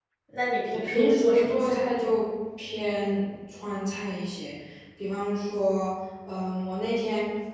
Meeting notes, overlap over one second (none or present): present